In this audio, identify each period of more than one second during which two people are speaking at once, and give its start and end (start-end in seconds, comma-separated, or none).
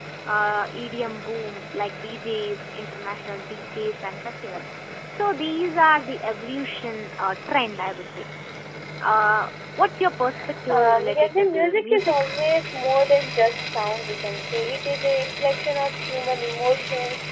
10.7-12.2